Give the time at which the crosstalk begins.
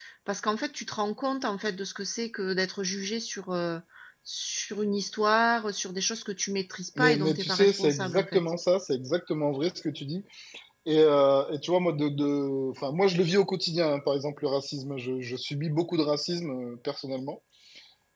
7.0 s

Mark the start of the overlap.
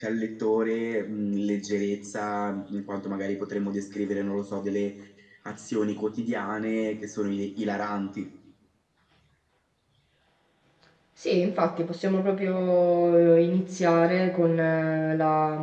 none

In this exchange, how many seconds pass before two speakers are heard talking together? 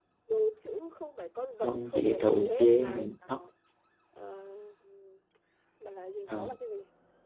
1.6 s

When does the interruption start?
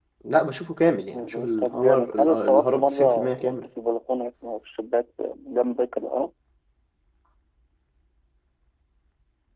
1.1 s

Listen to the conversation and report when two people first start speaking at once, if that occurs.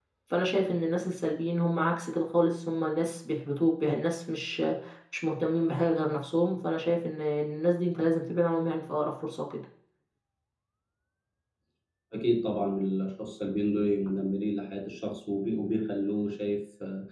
none

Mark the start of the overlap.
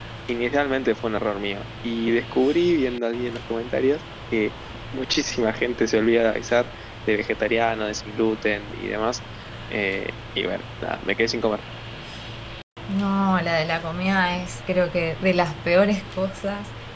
none

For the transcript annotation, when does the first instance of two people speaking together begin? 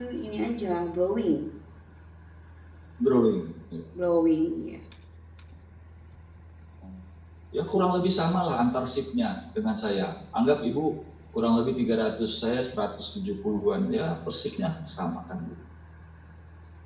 none

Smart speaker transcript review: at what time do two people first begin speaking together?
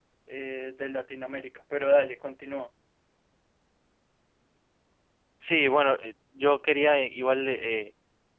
none

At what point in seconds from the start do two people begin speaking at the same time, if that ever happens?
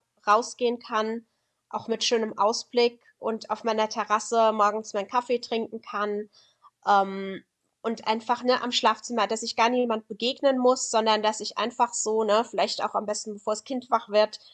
none

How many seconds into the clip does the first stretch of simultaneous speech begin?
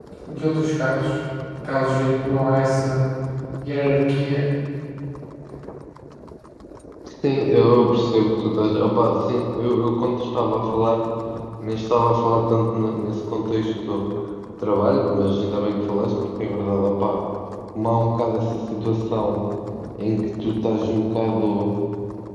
none

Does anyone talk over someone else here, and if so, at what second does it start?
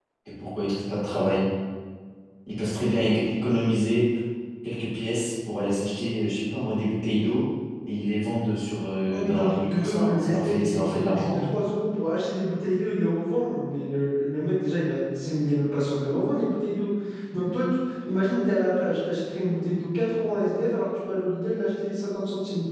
9.1 s

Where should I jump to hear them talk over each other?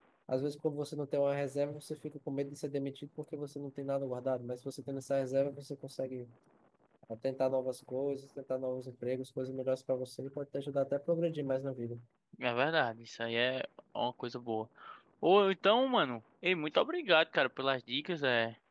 none

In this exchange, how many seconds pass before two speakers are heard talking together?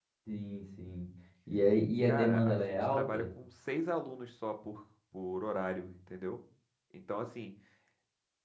2.0 s

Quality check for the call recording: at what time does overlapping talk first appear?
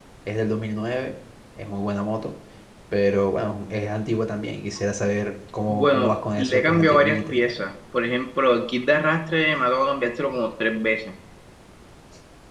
5.7 s

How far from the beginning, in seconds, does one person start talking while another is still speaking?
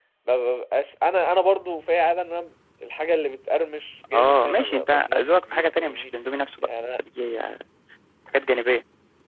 4.1 s

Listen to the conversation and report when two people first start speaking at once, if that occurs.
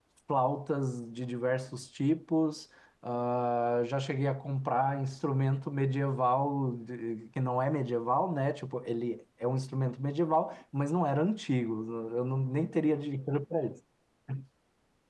none

